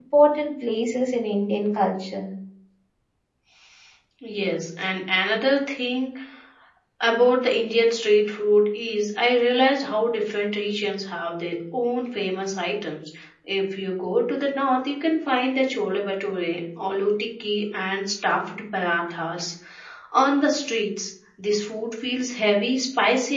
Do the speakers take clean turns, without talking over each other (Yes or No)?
Yes